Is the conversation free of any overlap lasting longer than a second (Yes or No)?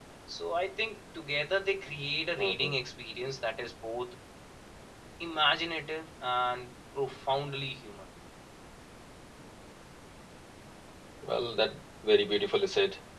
Yes